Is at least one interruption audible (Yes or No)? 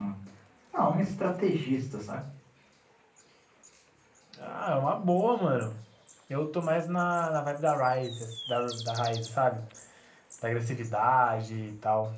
No